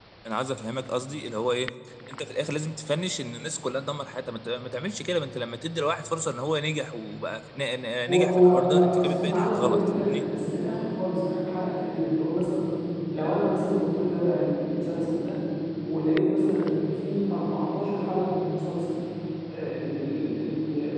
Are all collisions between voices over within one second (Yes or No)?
No